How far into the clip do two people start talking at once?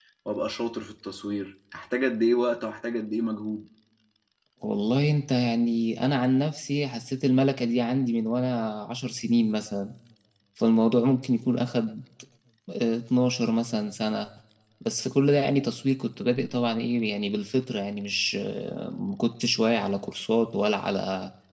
none

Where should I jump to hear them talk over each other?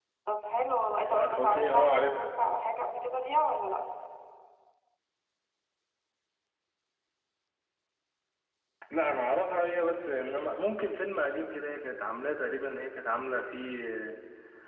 1 s

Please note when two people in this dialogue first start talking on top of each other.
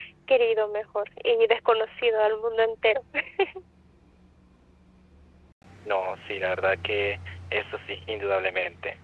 none

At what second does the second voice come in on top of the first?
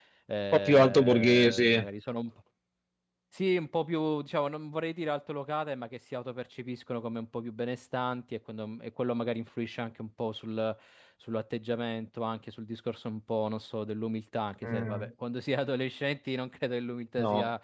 1 s

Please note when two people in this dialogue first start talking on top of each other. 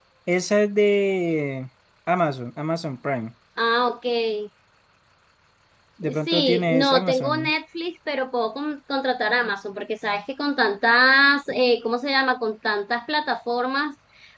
6 s

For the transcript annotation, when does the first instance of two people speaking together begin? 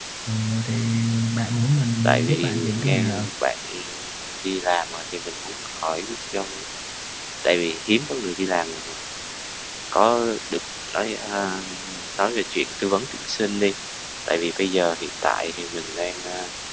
2 s

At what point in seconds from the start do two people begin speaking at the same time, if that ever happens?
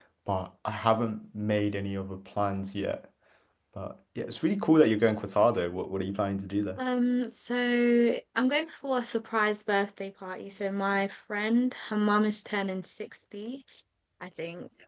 none

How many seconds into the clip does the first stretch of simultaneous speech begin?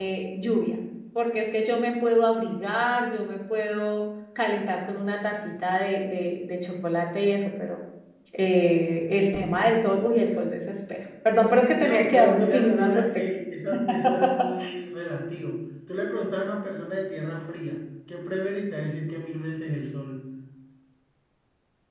12 s

